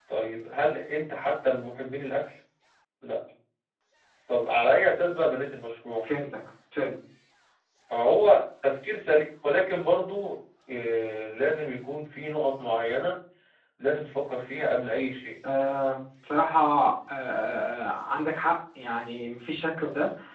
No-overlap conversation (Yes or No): Yes